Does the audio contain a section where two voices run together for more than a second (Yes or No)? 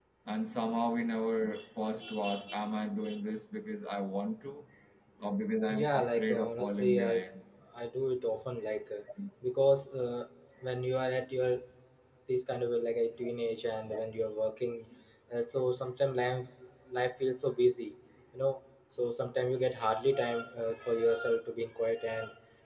Yes